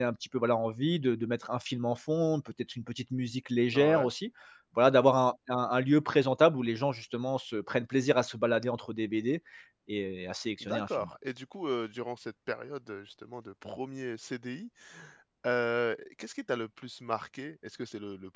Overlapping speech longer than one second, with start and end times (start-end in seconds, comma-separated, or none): none